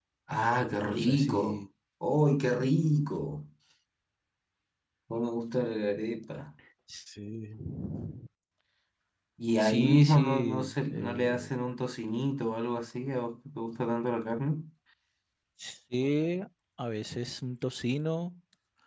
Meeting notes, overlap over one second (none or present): present